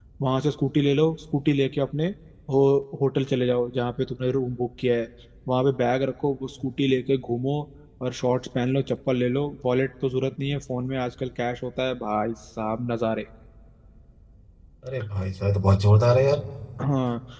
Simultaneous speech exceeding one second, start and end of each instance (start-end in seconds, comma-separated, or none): none